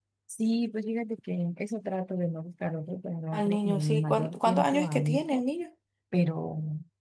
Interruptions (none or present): present